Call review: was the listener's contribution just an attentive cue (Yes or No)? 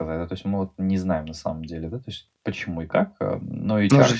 No